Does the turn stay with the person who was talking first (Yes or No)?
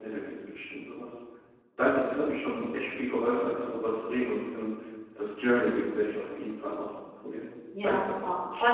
No